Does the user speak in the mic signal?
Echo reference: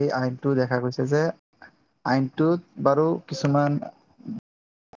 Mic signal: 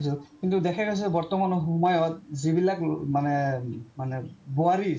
Yes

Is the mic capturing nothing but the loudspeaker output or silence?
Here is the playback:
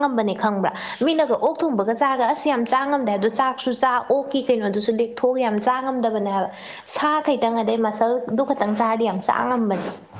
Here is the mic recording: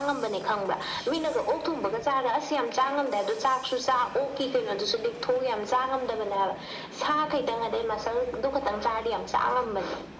Yes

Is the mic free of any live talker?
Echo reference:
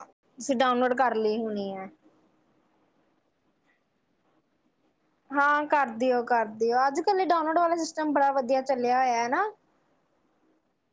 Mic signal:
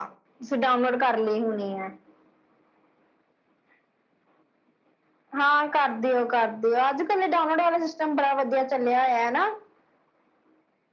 Yes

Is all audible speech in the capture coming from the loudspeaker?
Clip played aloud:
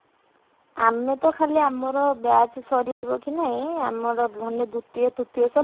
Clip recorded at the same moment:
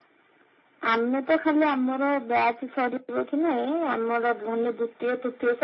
Yes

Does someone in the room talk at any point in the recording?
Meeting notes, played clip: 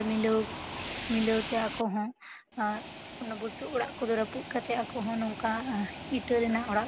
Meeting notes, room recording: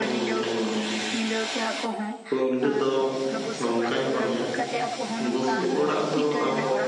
Yes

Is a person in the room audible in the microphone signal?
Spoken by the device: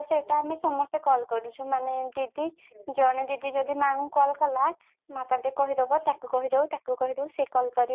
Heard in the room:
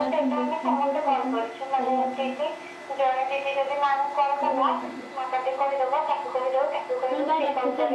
Yes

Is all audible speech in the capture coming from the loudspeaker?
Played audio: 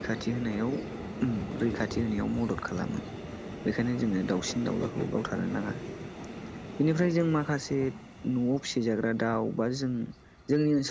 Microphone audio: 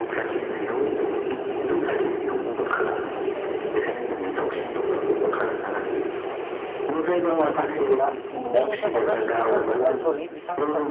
No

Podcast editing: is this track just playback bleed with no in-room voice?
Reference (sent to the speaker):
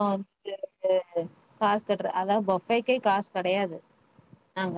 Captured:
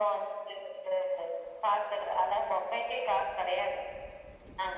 Yes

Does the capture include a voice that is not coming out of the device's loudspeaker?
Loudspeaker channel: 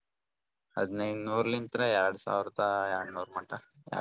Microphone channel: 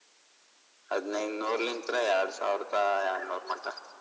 No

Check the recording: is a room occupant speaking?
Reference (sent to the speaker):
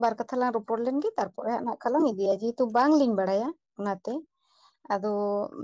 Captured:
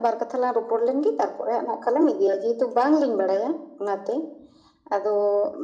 No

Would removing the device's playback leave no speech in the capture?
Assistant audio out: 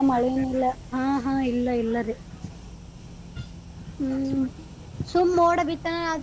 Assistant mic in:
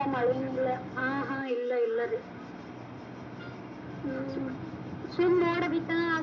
Yes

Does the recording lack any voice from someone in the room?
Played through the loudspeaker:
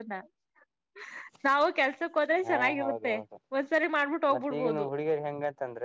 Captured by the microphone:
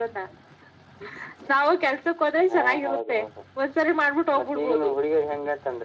Yes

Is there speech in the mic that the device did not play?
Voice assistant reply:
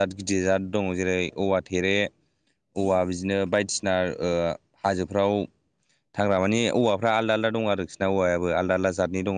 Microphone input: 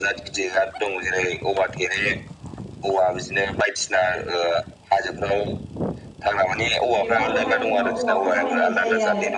Yes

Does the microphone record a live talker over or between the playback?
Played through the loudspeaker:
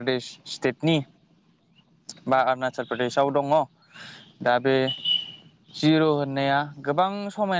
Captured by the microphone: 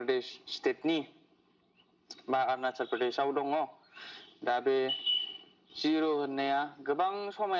No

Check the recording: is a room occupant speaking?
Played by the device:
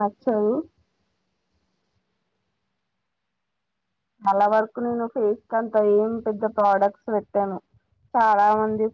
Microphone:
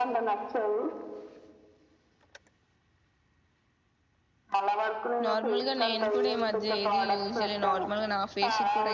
Yes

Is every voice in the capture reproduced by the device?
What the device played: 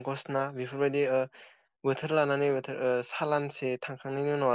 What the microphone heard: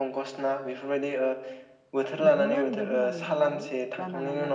No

